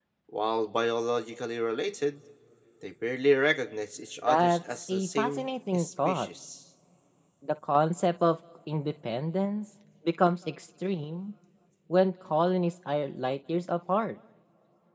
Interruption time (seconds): 4.3 s

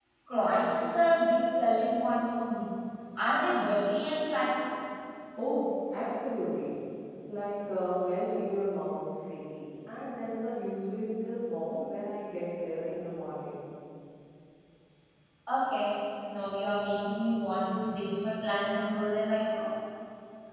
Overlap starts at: none

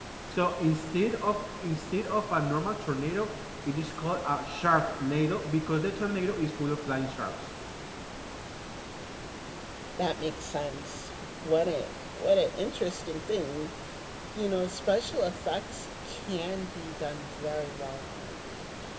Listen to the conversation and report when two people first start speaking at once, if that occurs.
none

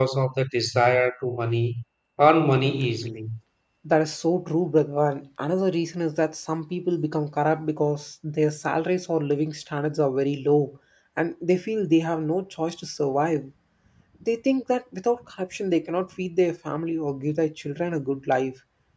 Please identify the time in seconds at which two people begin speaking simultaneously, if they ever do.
none

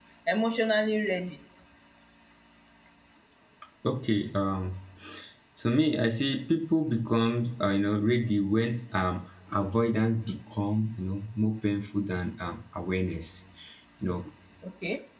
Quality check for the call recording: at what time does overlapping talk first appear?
none

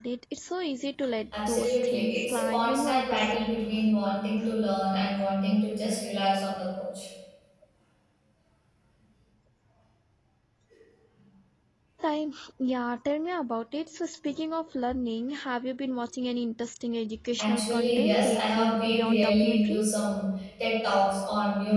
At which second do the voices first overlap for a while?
1.5 s

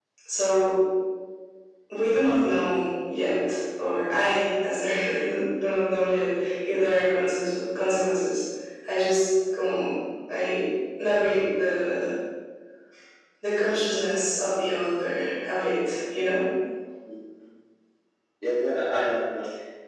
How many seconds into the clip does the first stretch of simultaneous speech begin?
none

